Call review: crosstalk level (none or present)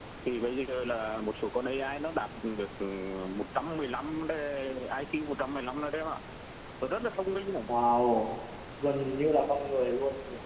none